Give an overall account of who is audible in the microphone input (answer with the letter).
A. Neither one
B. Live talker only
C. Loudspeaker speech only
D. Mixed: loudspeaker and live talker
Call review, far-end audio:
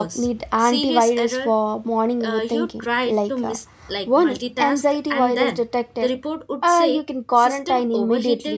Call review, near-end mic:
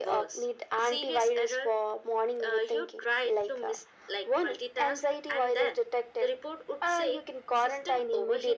C